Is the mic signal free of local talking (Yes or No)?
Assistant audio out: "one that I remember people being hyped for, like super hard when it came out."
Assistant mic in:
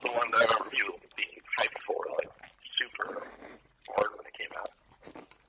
Yes